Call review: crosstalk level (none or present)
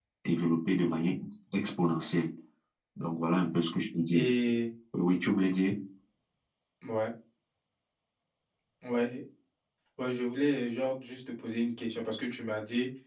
none